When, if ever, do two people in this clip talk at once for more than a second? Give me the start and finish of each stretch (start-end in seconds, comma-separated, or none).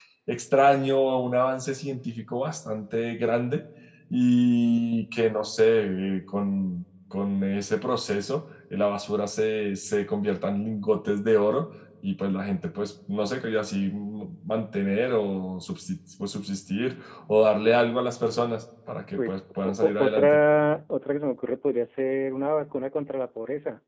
19.2-20.4